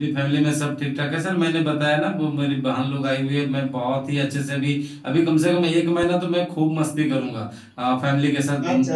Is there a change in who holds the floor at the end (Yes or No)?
No